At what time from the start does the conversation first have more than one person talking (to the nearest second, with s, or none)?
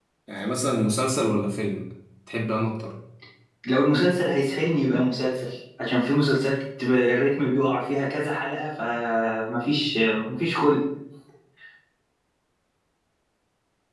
none